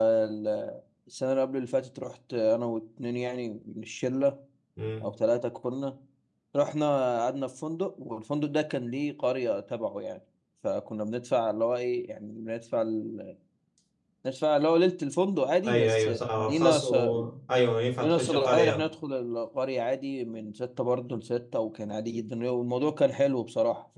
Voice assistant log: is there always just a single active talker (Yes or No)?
No